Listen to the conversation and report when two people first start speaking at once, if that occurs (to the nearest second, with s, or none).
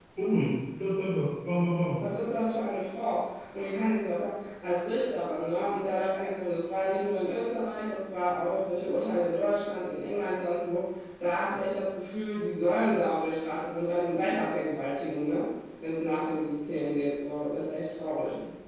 none